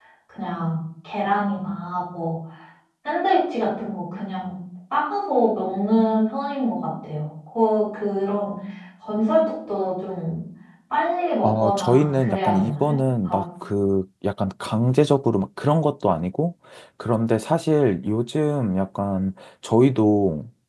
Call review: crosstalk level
present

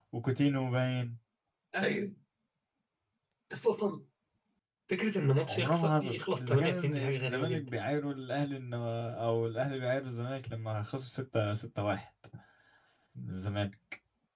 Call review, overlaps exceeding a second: present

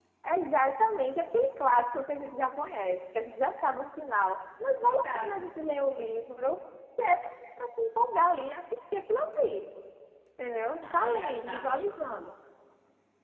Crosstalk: present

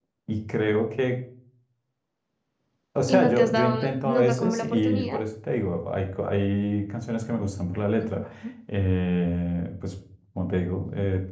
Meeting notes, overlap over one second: present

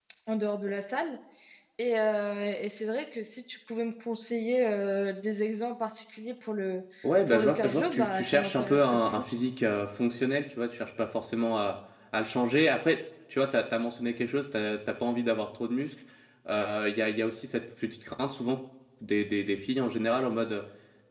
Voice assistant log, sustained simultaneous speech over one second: present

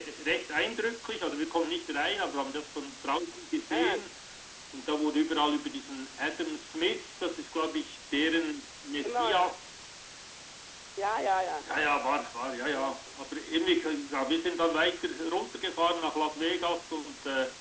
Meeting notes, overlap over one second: none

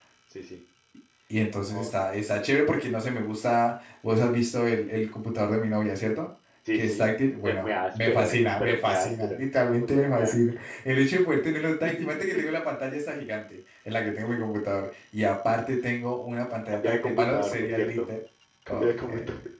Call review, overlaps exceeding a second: present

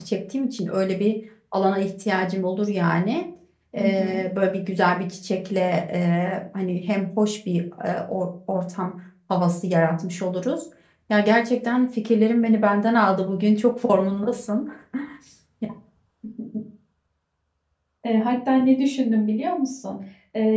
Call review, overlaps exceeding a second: none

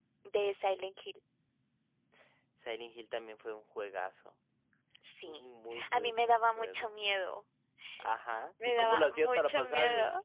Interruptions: present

